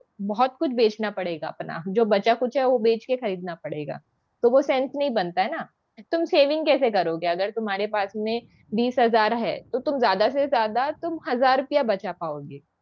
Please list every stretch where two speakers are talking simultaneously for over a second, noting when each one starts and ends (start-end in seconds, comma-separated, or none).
none